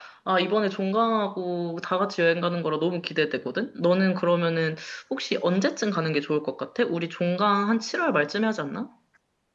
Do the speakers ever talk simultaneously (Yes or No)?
No